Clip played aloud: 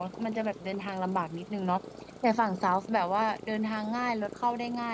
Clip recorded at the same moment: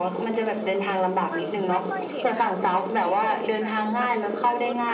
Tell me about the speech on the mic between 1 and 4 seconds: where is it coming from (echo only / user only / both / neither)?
both